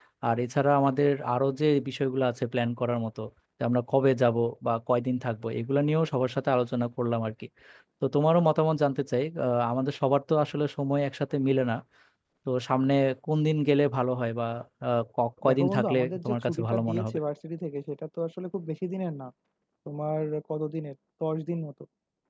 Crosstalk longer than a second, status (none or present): present